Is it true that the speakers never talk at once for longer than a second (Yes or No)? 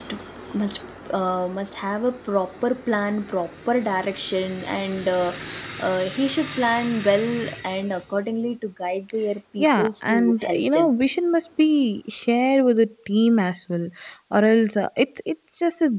No